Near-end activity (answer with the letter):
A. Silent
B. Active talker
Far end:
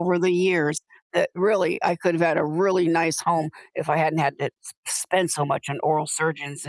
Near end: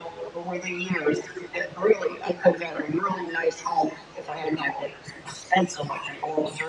A